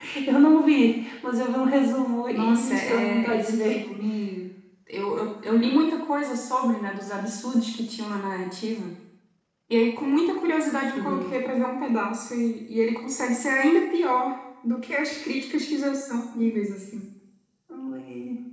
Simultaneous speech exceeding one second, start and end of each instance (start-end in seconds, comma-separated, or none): 2.3-3.8